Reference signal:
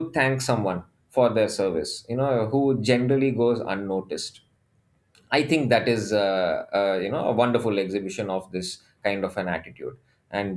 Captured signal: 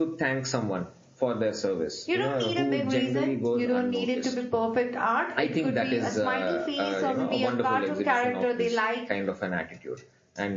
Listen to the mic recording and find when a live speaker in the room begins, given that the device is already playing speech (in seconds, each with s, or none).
2.0 s